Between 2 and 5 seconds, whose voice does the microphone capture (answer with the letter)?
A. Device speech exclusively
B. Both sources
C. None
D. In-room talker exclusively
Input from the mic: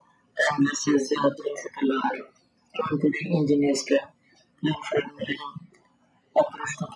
A